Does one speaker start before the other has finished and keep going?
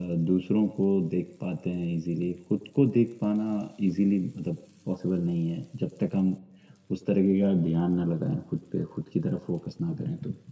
No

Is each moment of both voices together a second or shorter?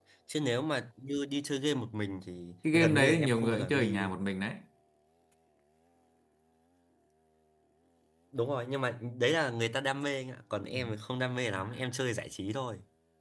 No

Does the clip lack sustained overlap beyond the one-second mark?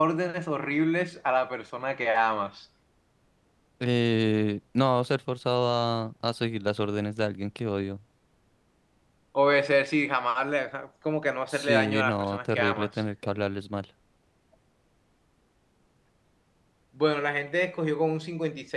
No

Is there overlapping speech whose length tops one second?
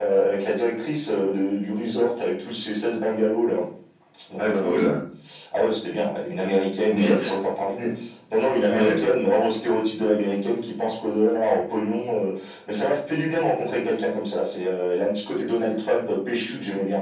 No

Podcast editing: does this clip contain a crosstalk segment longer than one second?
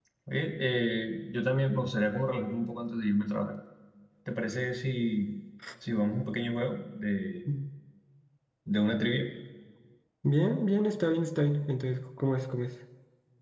No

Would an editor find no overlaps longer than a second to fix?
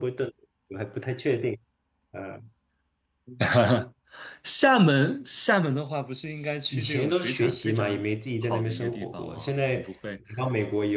No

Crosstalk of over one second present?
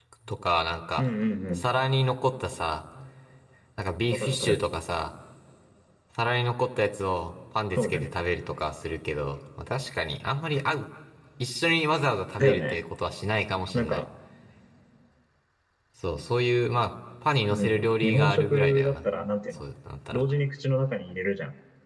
Yes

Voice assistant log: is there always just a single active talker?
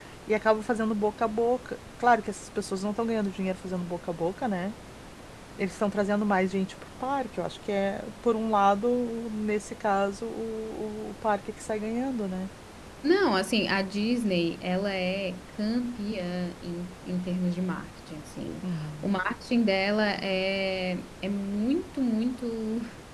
Yes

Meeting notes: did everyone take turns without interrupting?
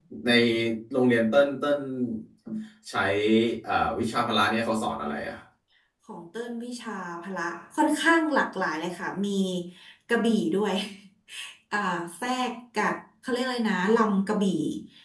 Yes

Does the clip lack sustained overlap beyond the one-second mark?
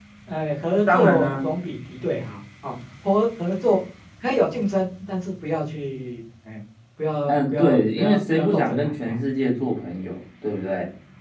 No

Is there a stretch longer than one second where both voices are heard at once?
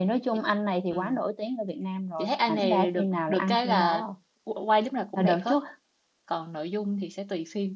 Yes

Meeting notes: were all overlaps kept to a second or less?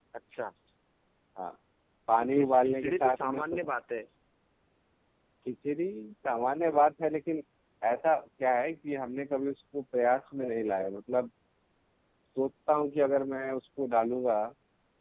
No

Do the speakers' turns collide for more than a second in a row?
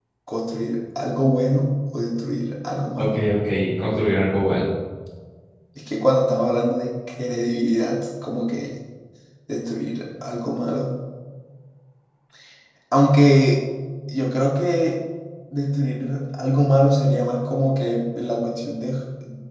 No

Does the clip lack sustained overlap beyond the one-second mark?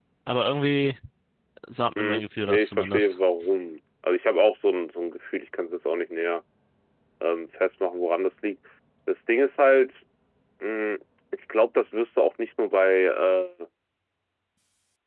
No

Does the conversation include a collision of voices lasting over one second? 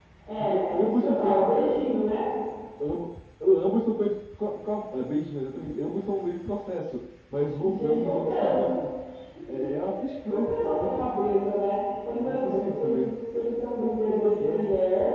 Yes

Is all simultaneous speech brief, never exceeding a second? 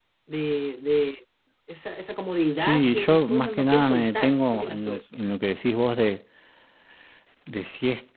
No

